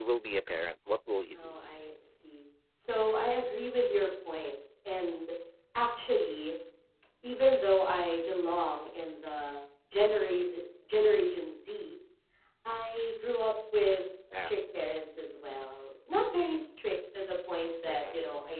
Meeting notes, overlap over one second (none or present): none